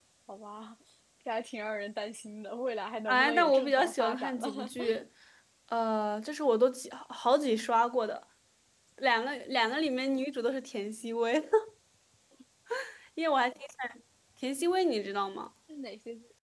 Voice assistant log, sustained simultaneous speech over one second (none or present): present